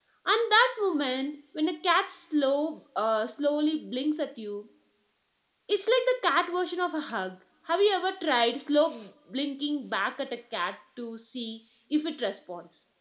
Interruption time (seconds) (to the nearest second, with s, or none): none